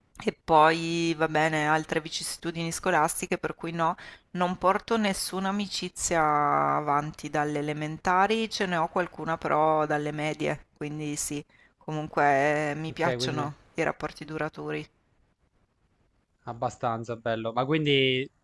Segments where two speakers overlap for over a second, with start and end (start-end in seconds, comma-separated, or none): none